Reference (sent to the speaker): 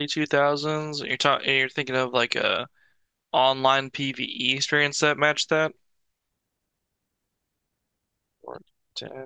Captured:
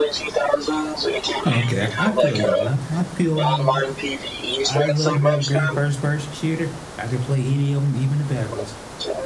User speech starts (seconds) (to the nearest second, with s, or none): 1 s